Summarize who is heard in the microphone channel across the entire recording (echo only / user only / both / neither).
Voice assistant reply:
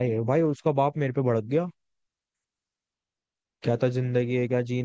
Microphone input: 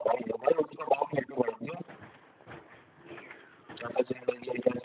echo only